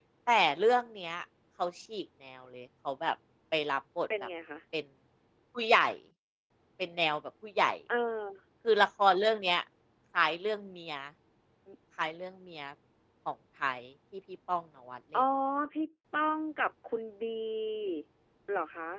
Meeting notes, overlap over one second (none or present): none